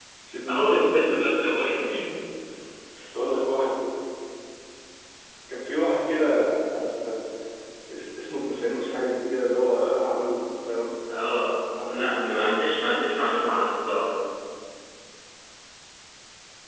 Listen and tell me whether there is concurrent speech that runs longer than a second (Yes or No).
Yes